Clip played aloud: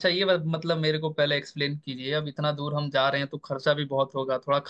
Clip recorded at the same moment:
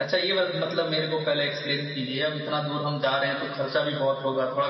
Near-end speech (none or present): none